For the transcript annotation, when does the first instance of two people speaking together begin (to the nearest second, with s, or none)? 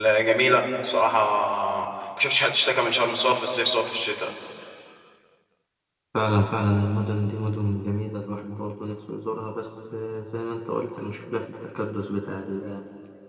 none